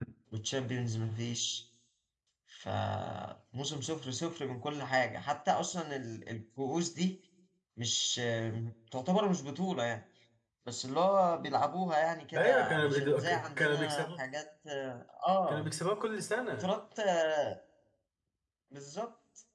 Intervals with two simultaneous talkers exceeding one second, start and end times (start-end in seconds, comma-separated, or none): 12.3-14.1